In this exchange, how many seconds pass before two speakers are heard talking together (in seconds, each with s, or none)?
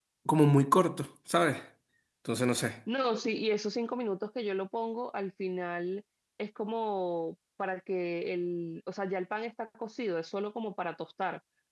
none